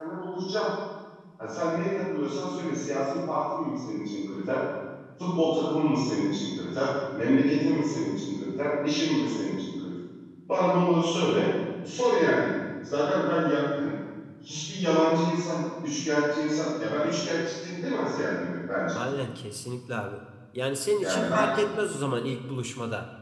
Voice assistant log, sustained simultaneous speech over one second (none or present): none